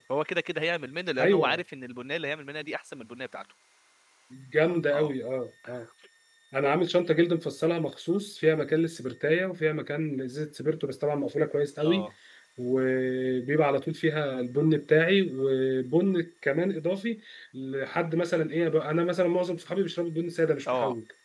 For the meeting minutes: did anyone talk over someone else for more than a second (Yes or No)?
No